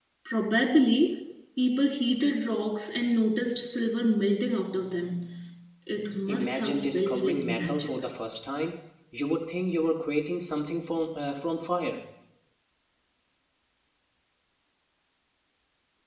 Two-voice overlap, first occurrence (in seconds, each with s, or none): 6.3 s